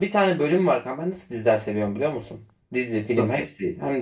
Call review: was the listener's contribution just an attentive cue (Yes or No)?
Yes